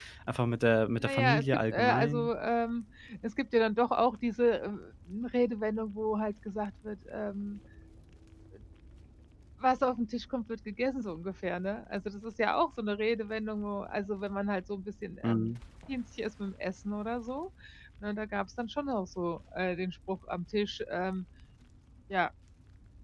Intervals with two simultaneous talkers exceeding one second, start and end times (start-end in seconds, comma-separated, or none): 1.0-2.3